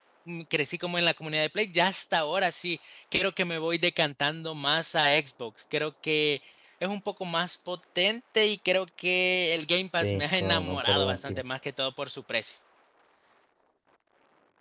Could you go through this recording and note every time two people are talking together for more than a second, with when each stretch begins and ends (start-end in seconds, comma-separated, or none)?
9.9-11.4